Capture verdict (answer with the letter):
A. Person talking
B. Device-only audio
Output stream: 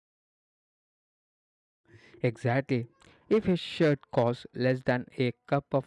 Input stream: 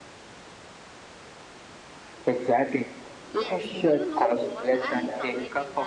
A